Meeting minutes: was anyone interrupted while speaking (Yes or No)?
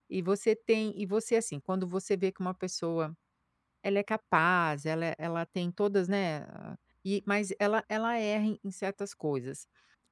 No